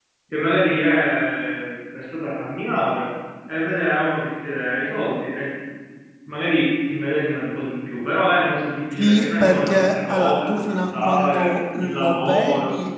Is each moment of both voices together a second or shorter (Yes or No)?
No